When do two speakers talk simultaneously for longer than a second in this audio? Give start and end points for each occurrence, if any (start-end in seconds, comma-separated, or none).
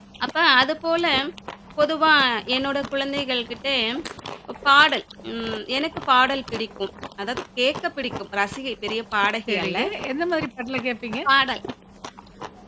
none